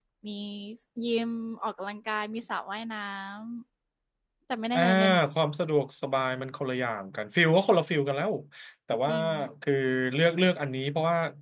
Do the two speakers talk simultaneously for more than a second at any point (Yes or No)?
No